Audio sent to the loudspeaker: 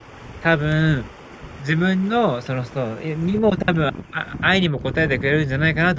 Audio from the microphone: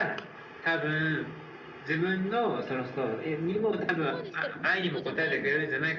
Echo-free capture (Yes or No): No